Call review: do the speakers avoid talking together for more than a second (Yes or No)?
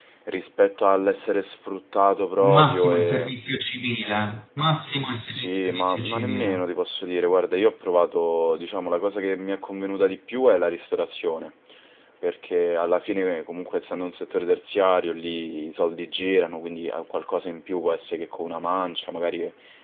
No